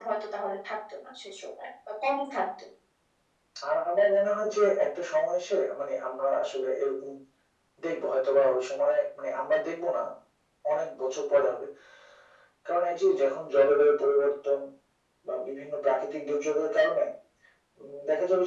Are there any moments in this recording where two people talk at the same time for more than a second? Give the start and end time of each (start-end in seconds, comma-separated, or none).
none